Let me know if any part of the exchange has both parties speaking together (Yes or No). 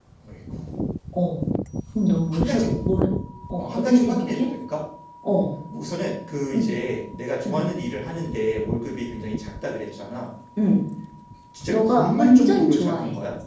Yes